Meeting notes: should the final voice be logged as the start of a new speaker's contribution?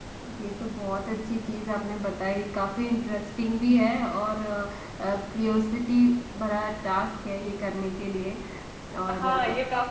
Yes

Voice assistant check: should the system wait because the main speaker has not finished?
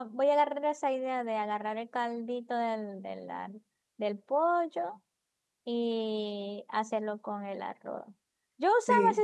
Yes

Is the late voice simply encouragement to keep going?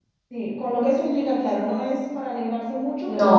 Yes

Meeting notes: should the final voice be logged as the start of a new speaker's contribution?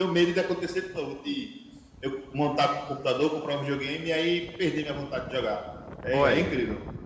Yes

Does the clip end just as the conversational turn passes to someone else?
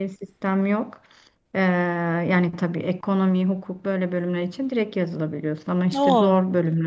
No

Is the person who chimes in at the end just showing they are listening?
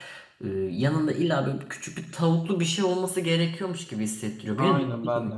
No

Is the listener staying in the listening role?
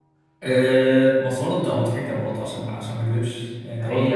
No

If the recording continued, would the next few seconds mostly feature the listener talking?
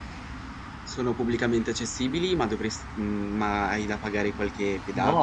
Yes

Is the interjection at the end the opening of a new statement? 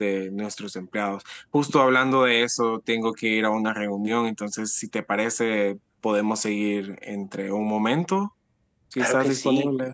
Yes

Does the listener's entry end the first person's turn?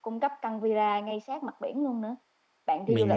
No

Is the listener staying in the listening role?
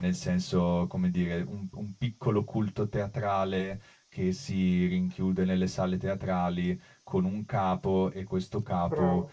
Yes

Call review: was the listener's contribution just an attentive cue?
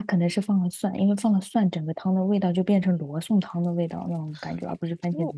No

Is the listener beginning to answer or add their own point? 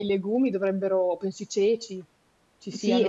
Yes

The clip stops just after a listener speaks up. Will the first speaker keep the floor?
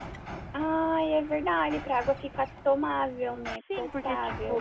No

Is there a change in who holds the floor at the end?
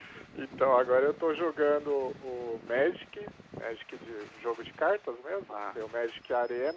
No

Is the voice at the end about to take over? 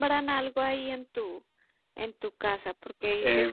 No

